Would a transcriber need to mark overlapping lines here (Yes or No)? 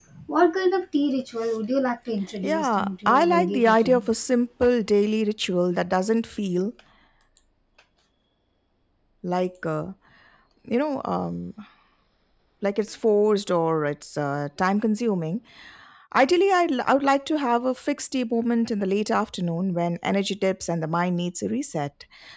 Yes